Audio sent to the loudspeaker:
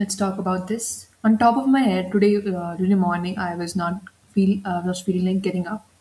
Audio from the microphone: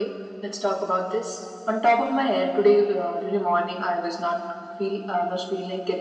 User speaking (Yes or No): No